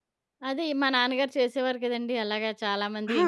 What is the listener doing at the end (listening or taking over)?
listening